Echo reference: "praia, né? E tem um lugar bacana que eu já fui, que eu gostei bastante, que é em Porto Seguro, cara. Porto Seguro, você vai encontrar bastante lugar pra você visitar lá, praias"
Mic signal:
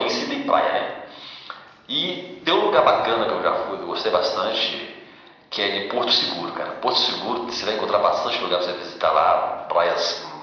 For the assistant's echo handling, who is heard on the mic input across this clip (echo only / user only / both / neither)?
echo only